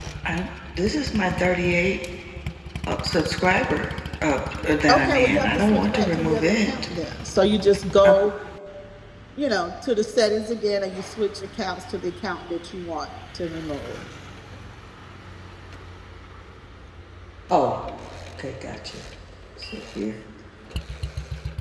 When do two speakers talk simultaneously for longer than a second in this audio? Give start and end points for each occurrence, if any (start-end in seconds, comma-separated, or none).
4.9-6.7